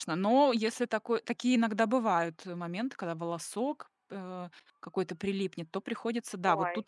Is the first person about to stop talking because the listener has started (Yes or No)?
No